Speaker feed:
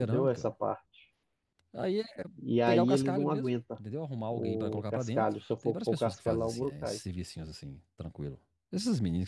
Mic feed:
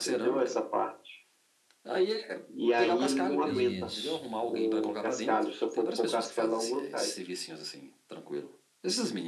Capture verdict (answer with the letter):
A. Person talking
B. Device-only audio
A